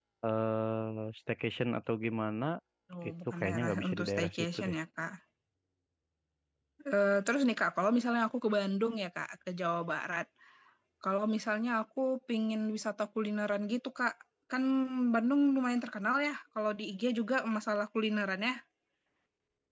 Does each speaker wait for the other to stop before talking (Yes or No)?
No